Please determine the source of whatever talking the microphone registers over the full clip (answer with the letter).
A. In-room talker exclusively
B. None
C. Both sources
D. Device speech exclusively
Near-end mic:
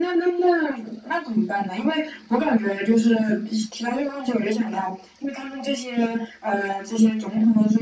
D